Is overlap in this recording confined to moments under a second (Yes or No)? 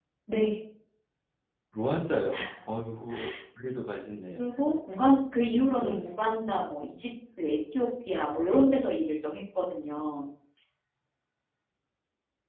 Yes